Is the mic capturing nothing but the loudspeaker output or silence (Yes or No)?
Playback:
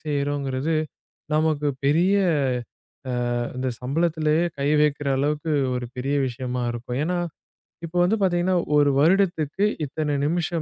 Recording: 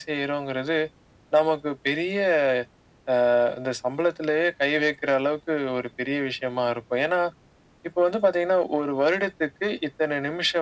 Yes